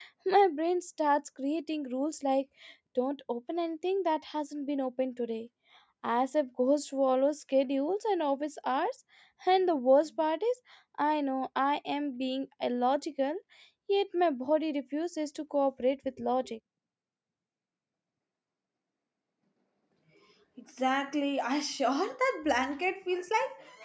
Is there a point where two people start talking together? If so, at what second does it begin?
none

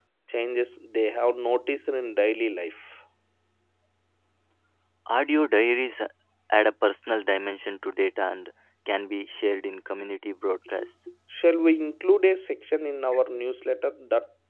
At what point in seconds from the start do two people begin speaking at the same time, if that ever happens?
none

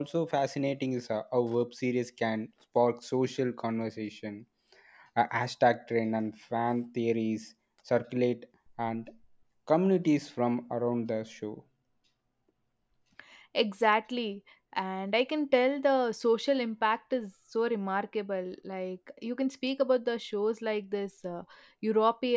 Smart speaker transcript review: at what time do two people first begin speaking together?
none

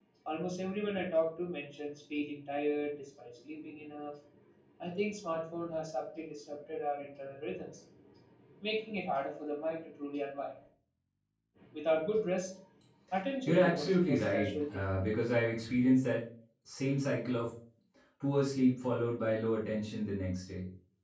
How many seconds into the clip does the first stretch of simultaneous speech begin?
13.5 s

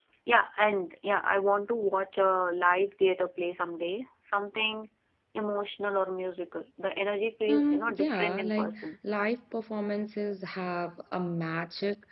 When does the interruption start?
7.5 s

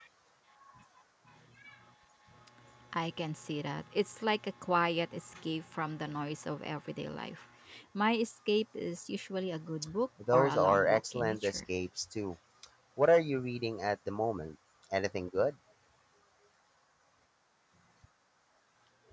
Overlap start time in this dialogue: 10.2 s

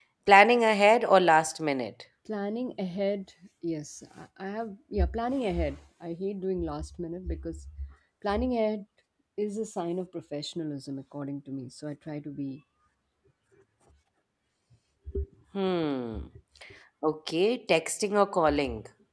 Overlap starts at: none

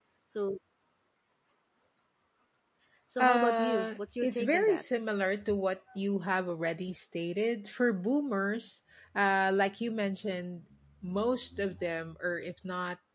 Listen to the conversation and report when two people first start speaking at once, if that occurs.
3.2 s

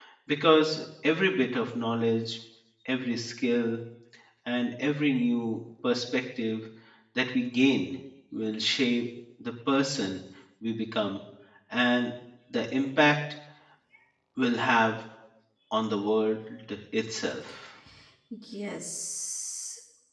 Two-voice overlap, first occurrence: none

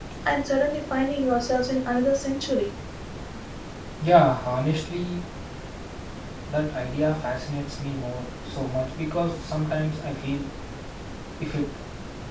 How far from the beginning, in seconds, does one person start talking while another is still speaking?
none

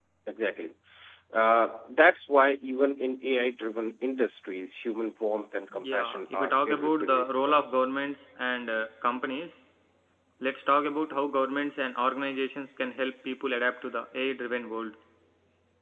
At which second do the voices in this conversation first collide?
5.7 s

